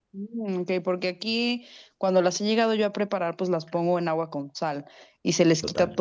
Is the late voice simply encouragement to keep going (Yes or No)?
Yes